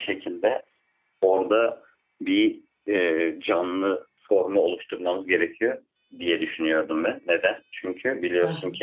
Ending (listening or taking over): listening